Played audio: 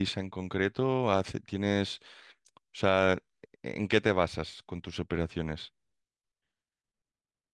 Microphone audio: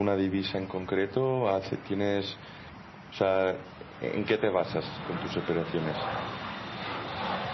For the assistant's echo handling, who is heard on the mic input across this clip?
echo only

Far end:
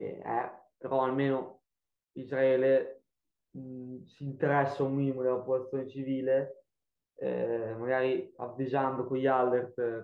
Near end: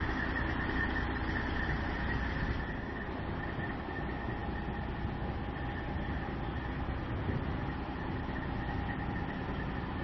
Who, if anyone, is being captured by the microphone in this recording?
neither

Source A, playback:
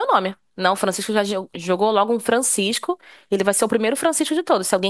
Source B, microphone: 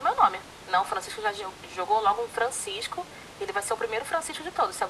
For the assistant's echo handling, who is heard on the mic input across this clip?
echo only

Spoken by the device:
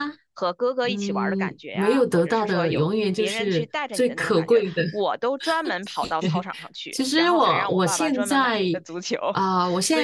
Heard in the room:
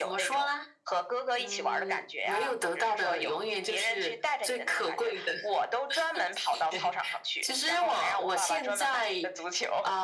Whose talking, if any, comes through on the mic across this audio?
echo only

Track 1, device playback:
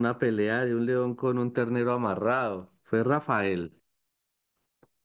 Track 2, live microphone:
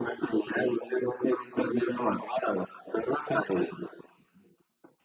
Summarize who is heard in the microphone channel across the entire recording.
echo only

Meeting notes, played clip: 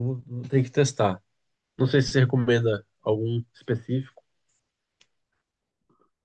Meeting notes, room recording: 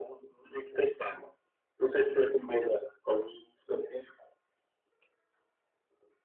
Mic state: echo only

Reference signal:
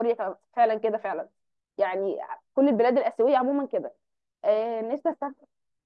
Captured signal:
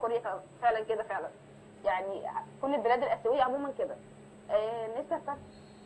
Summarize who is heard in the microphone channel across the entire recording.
echo only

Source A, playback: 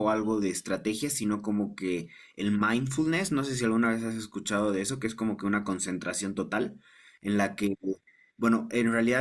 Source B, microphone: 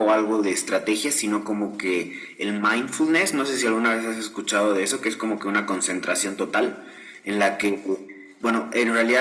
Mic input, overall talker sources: echo only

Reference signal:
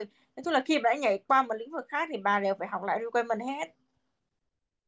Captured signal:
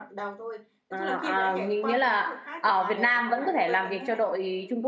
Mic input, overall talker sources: both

